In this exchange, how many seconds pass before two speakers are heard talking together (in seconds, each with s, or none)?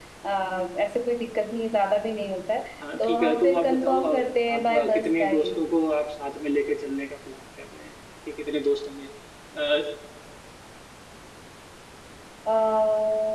2.8 s